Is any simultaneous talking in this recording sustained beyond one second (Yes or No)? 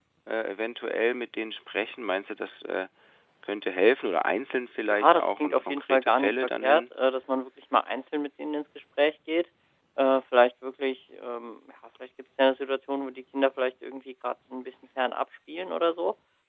Yes